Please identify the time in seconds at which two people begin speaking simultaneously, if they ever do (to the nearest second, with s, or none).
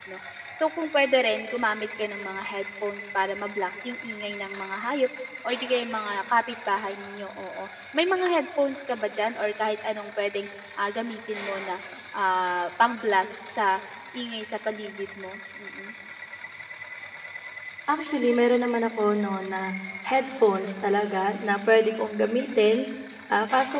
none